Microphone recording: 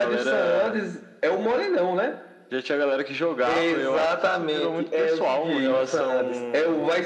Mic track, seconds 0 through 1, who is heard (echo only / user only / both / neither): echo only